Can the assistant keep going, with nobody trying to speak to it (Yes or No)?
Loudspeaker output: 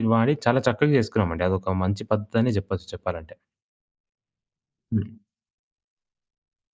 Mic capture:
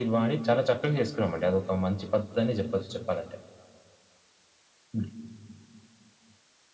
Yes